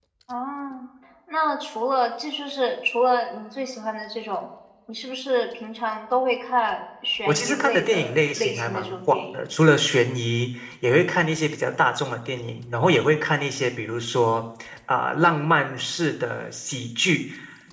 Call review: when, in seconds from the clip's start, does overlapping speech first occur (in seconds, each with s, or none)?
7.3 s